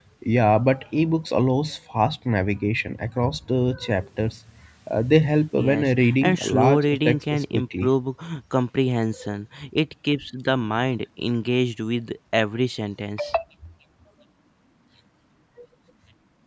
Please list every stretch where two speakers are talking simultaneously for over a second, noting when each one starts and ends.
5.6-7.9

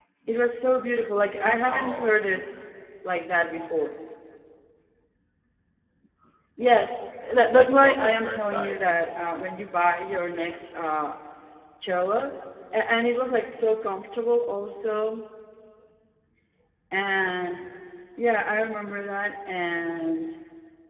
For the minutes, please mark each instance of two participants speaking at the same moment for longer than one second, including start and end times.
7.5-8.9

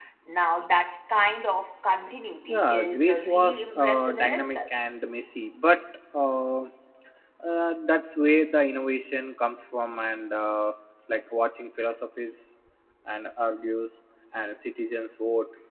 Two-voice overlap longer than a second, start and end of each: 2.5-4.6

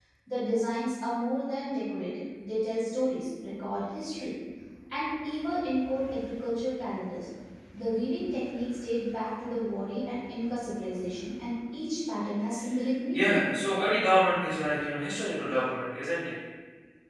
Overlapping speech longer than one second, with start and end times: none

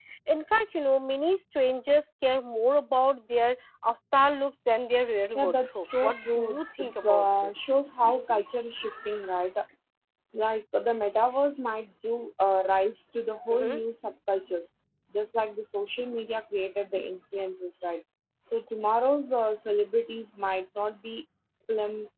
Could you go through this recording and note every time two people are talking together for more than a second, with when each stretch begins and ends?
5.3-7.5

